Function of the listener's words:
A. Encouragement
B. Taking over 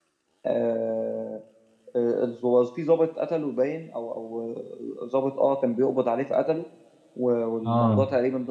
A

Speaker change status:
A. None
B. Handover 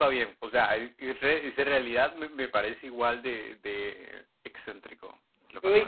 B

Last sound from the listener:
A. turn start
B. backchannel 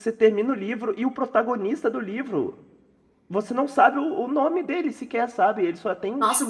A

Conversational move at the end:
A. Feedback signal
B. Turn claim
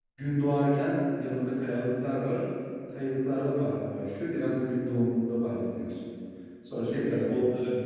A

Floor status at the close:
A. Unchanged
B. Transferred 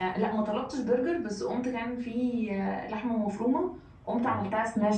A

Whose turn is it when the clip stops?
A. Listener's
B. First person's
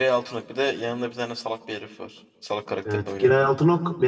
A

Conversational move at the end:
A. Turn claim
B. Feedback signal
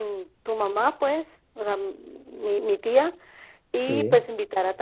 B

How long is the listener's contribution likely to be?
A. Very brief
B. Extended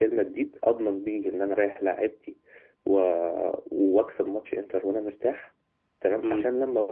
A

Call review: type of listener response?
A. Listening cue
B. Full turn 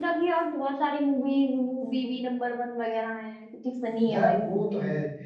B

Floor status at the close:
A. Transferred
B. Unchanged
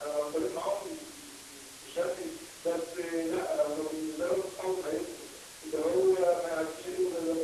B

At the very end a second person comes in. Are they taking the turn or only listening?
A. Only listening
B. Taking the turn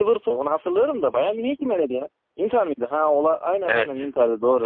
B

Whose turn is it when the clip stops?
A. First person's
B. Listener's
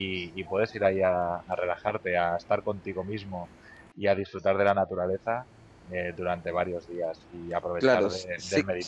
B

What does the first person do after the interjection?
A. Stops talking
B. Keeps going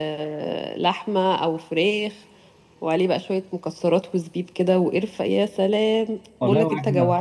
A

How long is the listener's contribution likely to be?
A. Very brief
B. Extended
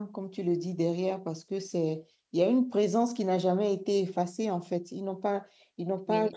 A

